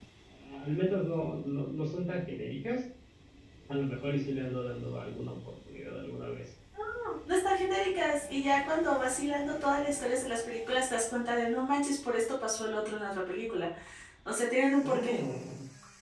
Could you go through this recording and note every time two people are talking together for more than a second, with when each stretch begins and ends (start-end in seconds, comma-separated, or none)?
none